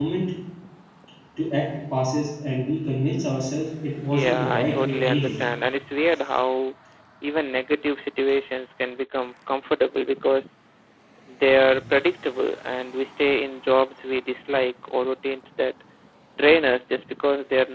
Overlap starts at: 4 s

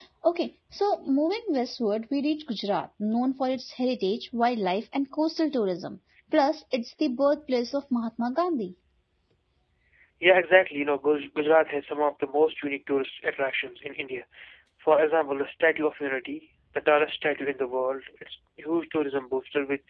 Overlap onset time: none

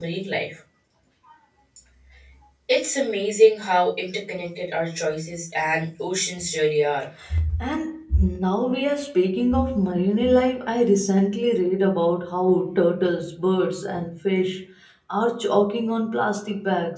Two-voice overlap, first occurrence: none

